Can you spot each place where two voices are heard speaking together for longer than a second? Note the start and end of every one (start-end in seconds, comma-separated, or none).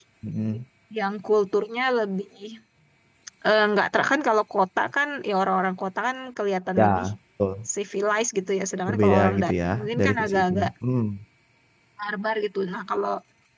8.9-10.7